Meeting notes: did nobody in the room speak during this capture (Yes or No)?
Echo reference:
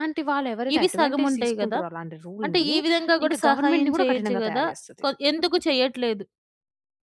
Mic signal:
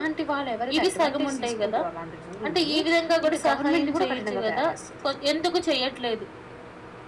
Yes